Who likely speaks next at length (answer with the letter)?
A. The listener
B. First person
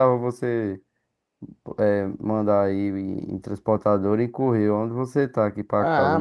A